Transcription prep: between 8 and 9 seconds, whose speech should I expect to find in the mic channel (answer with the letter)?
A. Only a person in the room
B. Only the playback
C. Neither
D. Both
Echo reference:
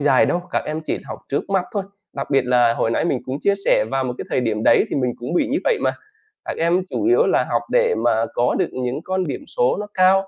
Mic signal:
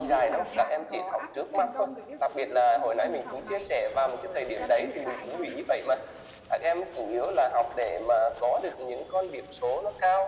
B